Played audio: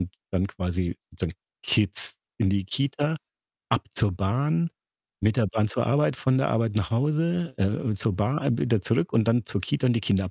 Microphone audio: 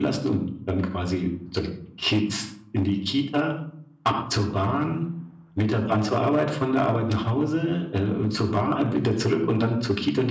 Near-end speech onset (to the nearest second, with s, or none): none